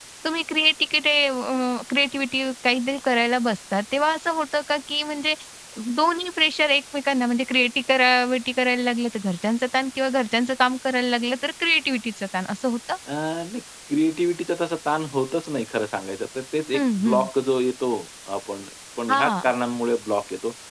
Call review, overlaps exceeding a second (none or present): none